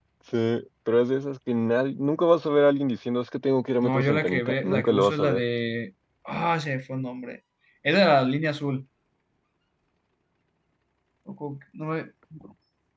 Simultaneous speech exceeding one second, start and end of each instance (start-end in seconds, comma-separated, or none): 3.8-5.4